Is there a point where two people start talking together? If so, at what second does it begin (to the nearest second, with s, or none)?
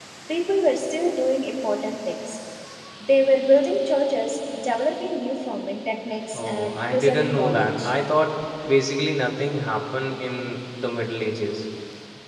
6 s